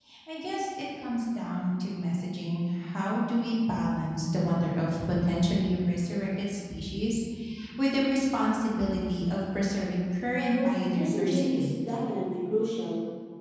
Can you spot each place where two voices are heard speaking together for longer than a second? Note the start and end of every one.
10.3-11.7

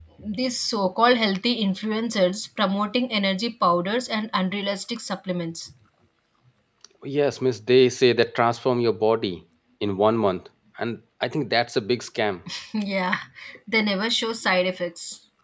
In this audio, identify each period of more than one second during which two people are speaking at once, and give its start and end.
none

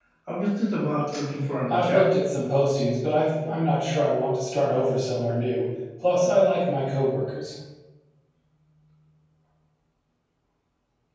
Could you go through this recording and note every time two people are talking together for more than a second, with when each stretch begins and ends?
none

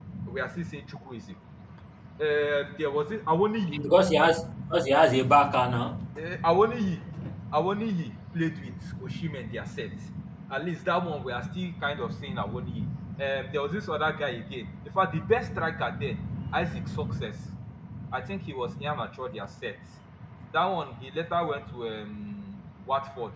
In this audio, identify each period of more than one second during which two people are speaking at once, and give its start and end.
none

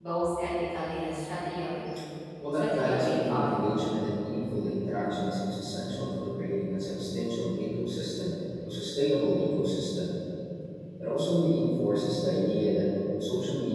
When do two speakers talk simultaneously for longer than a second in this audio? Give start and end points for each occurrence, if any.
2.5-3.8

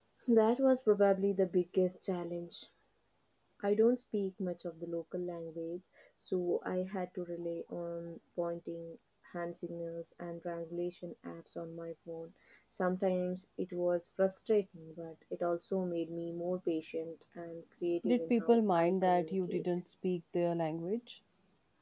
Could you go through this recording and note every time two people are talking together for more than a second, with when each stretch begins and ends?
18.0-19.6

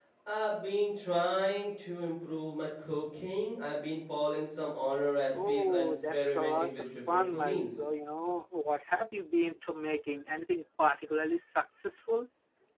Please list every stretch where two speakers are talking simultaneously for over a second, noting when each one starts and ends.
5.3-7.8

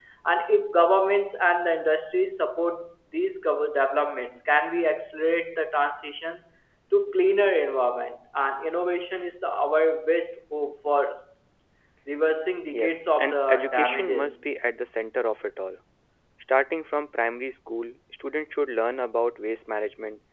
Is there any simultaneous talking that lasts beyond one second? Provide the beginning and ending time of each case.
12.7-14.4

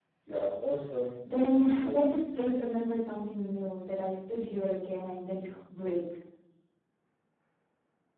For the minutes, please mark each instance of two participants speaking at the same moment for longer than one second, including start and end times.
1.3-3.0

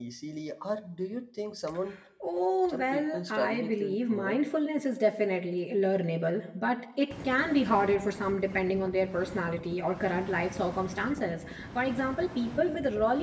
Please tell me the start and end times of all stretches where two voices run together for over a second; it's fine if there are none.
2.7-4.4

